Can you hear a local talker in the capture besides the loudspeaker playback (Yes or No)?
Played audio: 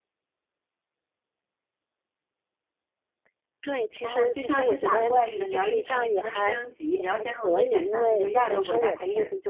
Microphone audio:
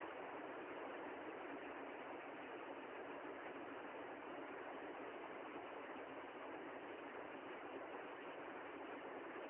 No